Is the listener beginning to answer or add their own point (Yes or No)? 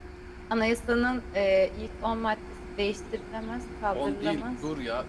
Yes